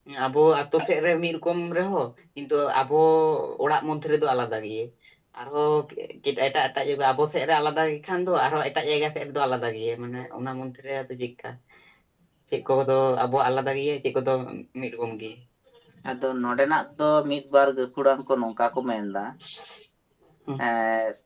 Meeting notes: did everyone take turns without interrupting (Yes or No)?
Yes